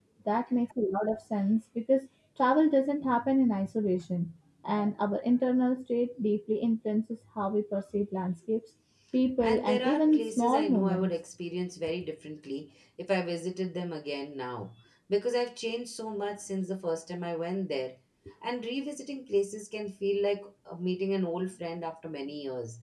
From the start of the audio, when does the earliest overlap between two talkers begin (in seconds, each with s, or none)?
9.4 s